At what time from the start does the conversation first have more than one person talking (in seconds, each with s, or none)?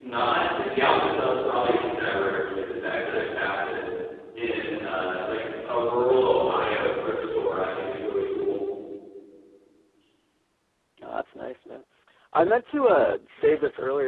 none